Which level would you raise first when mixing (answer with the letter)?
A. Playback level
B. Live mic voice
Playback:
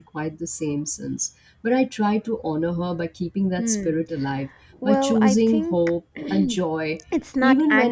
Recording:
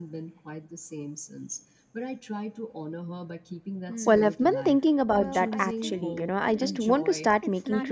A